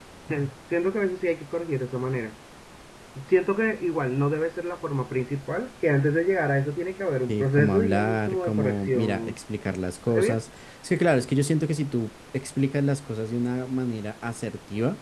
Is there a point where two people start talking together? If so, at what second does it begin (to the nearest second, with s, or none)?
7 s